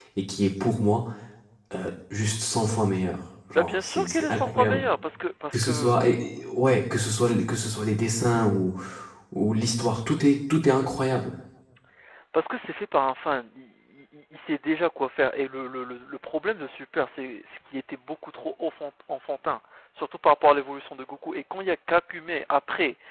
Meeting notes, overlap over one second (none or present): present